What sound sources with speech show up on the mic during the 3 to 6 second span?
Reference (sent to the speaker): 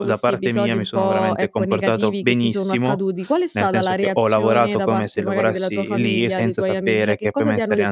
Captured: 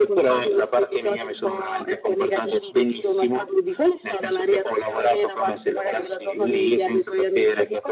echo only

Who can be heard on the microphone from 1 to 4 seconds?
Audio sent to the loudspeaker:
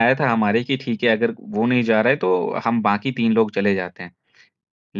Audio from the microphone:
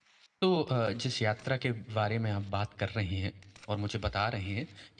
user only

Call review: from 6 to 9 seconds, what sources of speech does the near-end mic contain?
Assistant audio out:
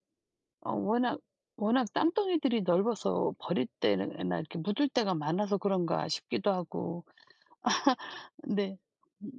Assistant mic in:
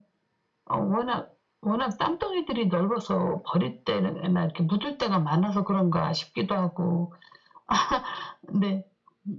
echo only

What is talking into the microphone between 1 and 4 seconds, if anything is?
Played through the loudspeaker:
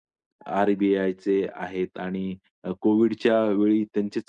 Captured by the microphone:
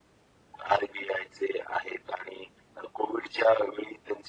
echo only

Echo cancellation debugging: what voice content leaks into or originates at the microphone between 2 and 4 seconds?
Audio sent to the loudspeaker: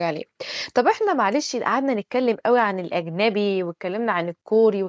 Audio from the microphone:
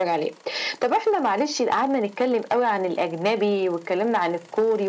echo only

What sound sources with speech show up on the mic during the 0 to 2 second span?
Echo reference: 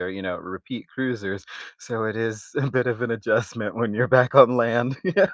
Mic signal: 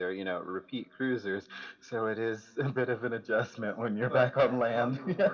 echo only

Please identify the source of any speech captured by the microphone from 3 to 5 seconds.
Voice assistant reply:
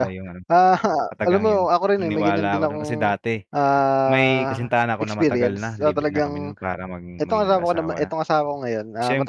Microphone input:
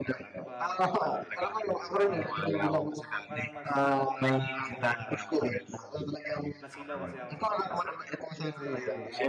both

